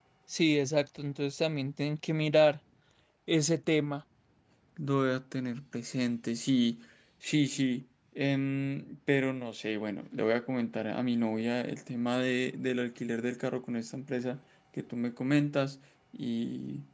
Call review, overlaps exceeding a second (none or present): none